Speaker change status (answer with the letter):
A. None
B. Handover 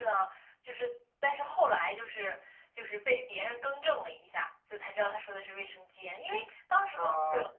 A